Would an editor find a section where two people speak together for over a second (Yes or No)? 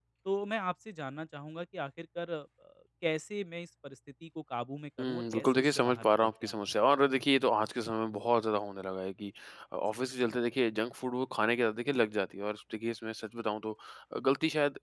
Yes